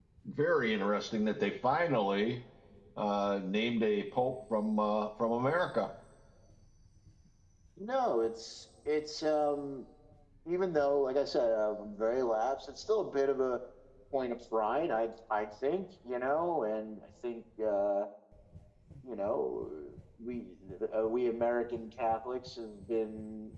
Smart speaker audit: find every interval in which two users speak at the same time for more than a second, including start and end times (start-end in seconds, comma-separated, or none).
none